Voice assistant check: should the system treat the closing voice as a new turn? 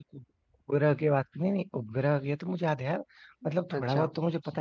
No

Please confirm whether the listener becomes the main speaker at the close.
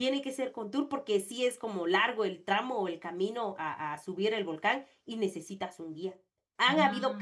No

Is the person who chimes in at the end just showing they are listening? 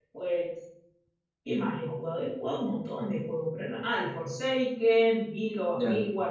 Yes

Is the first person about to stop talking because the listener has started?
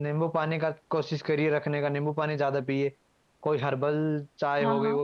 No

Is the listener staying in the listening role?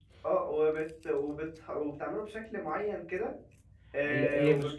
No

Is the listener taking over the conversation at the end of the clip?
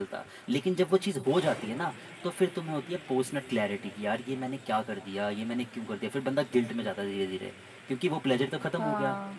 No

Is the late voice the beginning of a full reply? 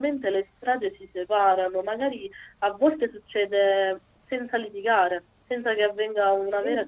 No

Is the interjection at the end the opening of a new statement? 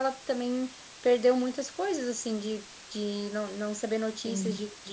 No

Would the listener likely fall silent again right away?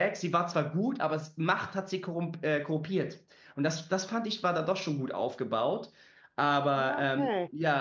No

